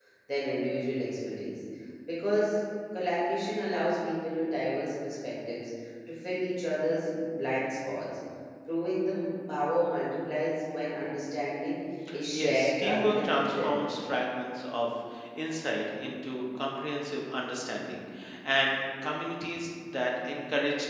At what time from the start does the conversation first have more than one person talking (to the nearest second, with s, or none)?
12 s